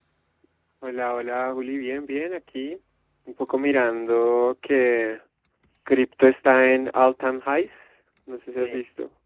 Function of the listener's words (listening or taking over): taking over